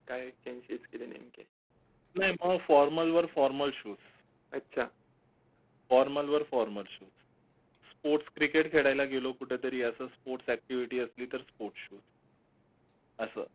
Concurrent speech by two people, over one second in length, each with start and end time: none

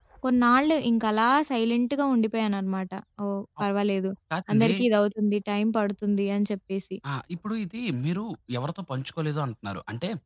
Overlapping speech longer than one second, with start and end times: none

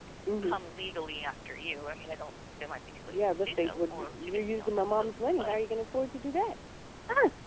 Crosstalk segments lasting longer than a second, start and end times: 3.1-5.5

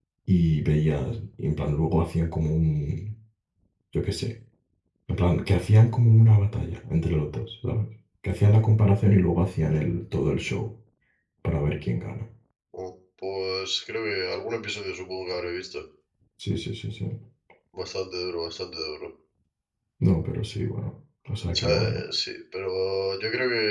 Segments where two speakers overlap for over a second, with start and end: none

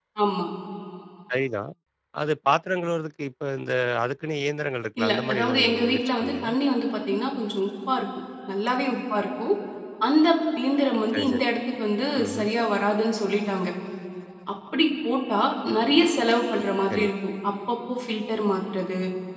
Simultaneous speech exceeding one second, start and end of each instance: 5.0-6.5

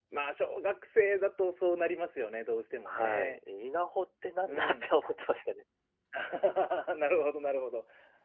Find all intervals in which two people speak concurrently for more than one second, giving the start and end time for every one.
none

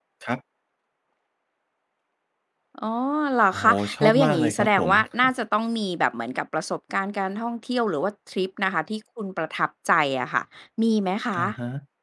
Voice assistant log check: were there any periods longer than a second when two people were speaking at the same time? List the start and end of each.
3.5-4.9

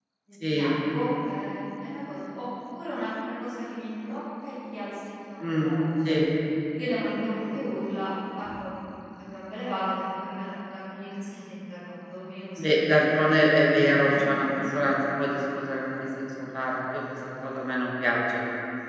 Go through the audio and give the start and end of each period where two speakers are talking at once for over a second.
12.6-14.7

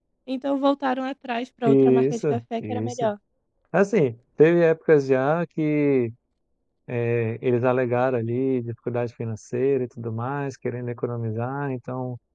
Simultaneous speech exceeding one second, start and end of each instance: 1.7-3.1

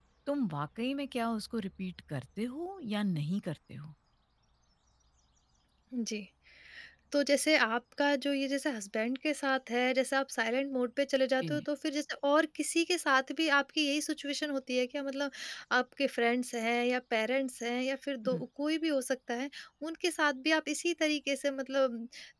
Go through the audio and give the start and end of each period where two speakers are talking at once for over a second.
none

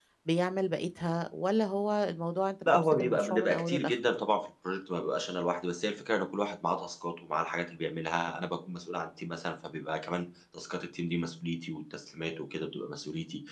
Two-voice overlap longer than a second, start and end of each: 2.7-3.9

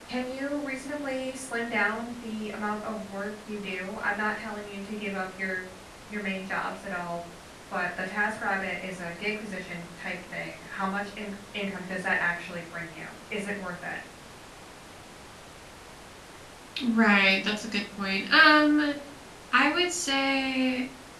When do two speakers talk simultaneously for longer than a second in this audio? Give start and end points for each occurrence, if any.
none

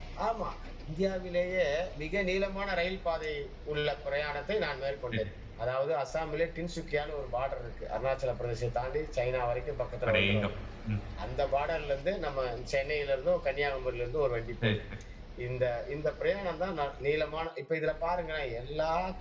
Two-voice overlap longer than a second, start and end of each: none

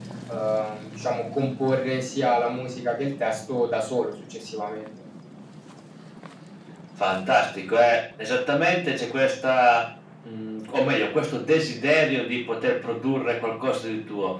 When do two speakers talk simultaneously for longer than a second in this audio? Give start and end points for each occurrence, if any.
none

